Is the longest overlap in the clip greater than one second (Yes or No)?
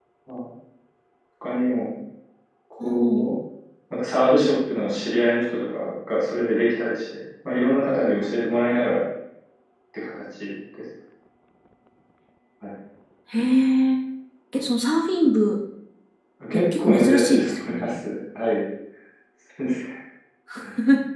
Yes